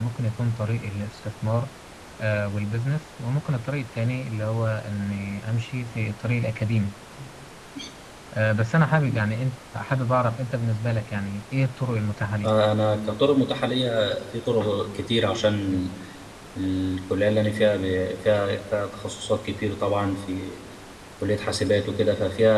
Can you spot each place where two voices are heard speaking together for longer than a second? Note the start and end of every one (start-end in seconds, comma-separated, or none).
none